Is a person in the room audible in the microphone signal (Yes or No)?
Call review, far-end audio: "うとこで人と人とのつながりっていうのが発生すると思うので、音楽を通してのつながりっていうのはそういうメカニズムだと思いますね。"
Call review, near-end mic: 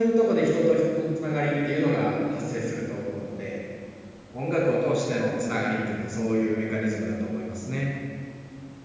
No